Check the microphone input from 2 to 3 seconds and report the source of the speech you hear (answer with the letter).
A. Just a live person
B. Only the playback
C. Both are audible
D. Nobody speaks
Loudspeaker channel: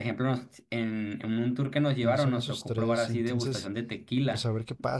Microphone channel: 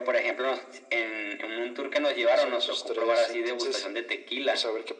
B